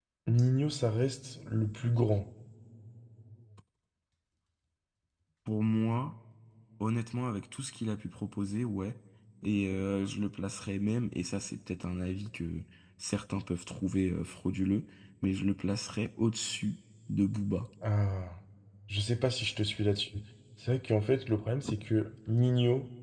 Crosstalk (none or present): none